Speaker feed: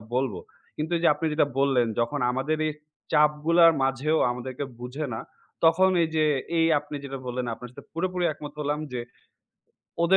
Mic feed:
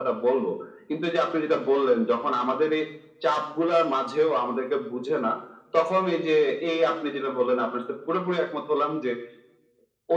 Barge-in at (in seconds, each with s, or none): none